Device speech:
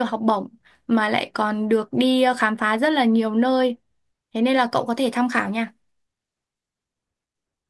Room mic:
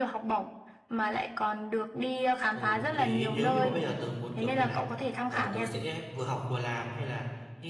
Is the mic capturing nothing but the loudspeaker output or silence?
No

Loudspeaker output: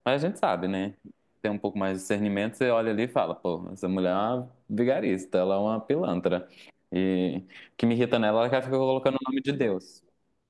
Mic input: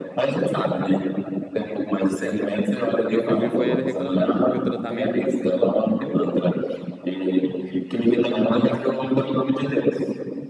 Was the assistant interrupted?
Yes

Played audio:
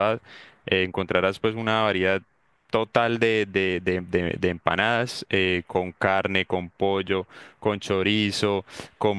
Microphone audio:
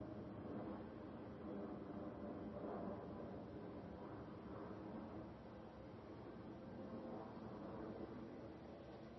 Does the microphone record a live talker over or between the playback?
No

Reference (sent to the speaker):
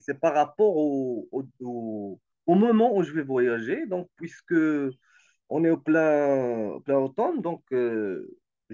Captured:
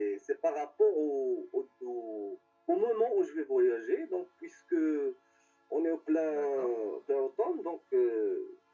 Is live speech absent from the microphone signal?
No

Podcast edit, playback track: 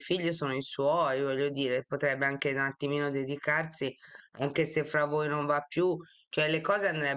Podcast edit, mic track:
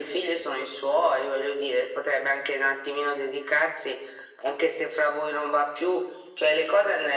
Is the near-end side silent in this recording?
Yes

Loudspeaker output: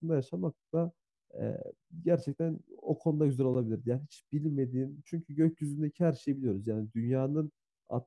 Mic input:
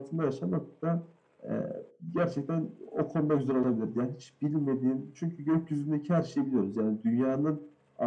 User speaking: No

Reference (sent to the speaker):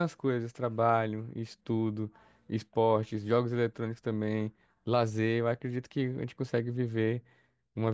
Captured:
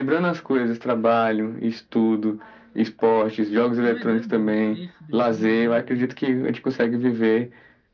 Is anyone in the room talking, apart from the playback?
Yes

